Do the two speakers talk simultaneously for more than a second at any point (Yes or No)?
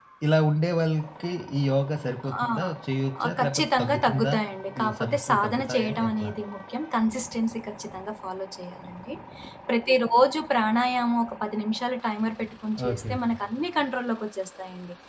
Yes